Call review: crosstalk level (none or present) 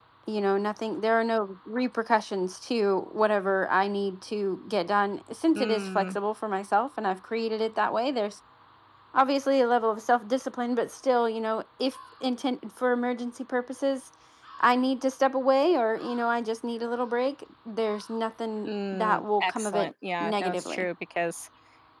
present